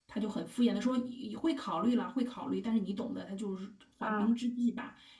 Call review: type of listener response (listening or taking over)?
listening